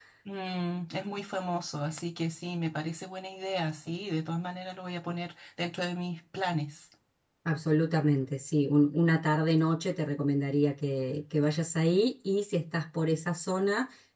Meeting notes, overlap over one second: none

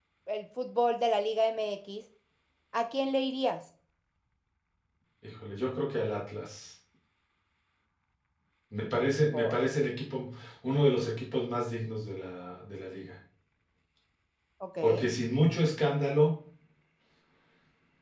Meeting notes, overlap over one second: none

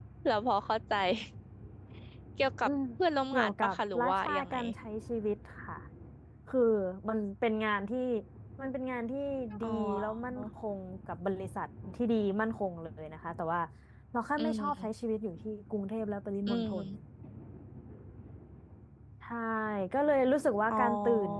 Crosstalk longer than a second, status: present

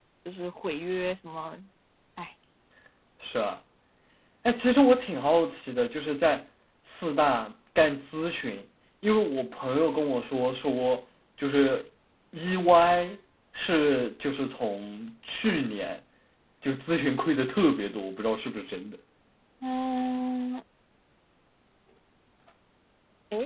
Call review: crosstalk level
none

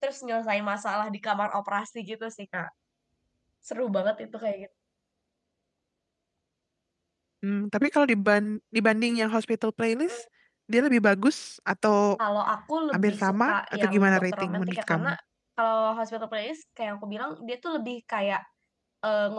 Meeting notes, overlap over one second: present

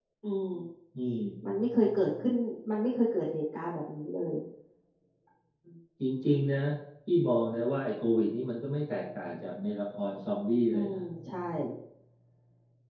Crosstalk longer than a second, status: none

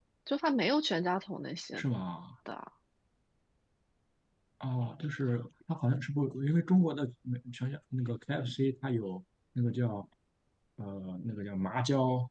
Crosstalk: none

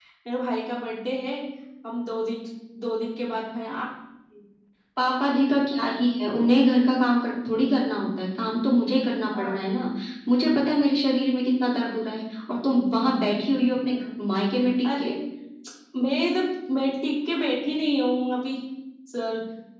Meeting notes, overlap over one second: none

